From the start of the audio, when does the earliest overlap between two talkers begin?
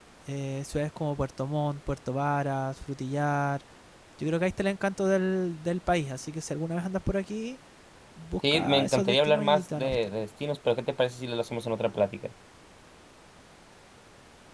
8.5 s

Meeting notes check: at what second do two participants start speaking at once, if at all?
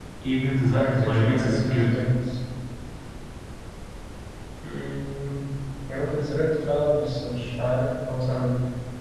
0.8 s

